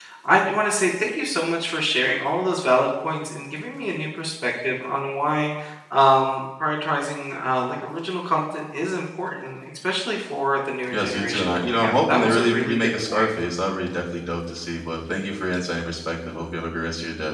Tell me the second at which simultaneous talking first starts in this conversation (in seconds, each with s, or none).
10.8 s